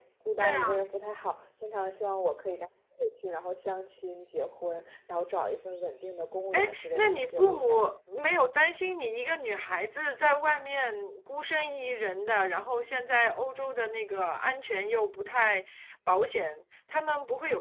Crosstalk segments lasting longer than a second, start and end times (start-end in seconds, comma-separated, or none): 6.5-7.9